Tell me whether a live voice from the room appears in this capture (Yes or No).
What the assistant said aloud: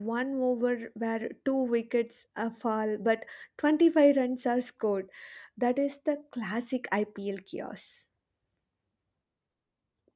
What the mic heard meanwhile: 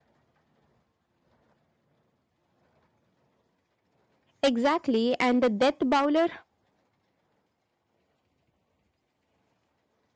Yes